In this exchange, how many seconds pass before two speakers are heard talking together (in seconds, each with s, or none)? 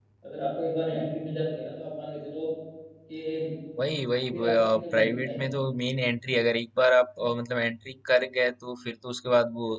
4.3 s